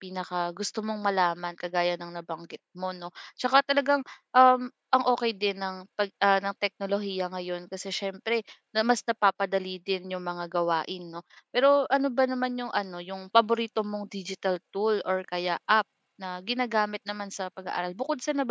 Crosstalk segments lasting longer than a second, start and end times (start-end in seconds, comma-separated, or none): none